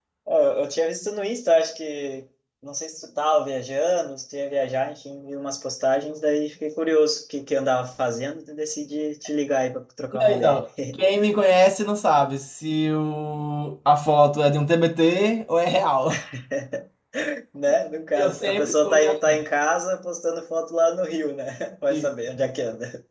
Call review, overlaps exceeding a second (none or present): present